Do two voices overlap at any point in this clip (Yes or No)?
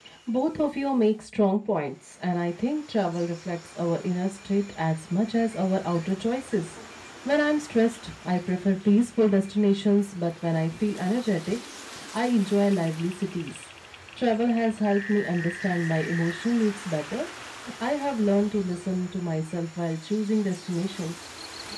No